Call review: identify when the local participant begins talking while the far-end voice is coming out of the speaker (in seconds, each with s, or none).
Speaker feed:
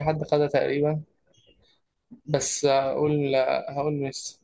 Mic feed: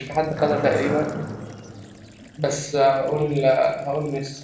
0.4 s